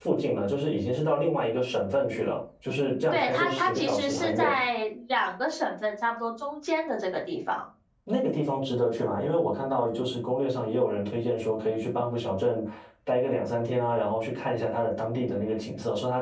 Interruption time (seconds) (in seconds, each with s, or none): 3.1 s